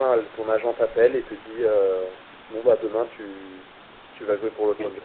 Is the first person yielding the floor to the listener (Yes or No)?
Yes